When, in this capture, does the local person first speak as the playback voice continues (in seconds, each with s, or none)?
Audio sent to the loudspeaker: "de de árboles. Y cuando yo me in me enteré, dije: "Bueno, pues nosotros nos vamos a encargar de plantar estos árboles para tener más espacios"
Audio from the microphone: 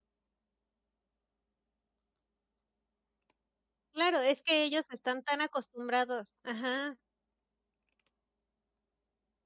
3.9 s